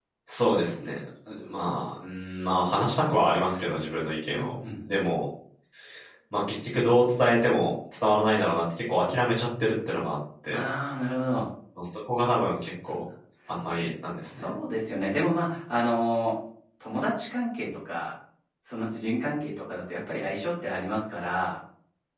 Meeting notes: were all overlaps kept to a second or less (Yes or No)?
Yes